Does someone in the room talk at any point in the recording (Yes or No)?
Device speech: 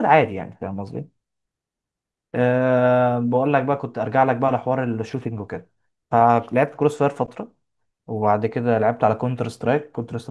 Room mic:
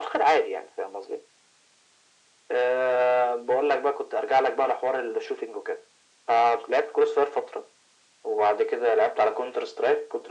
No